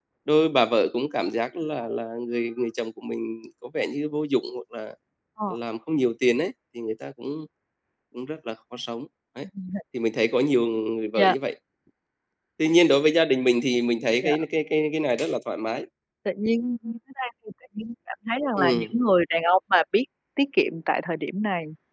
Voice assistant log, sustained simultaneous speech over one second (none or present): none